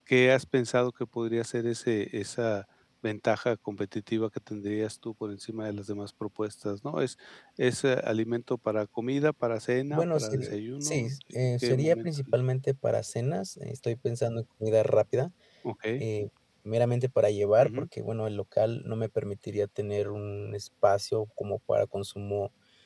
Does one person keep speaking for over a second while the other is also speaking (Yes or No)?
Yes